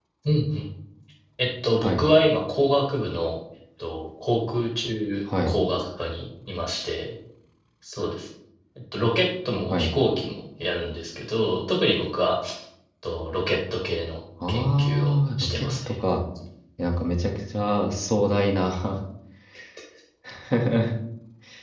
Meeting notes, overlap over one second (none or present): present